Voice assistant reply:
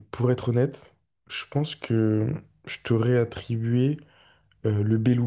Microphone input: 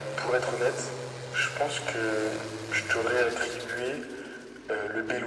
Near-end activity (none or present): none